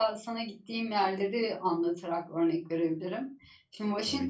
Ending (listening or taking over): listening